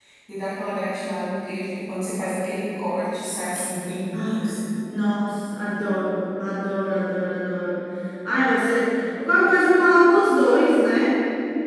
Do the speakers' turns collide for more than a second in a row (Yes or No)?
No